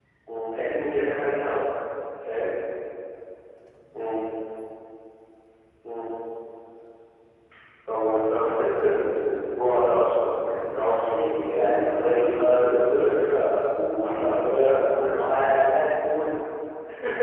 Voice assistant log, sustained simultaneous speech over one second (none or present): present